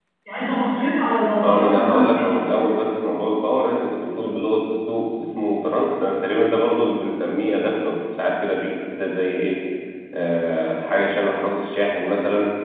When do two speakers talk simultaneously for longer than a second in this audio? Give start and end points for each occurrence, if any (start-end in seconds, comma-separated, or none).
1.4-2.7